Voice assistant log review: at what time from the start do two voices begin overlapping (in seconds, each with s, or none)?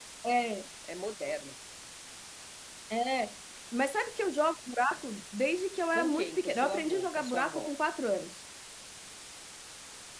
5.9 s